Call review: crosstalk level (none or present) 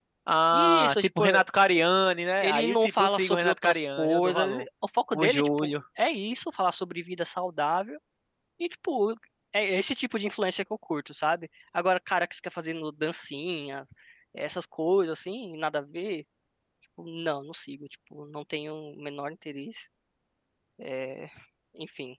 present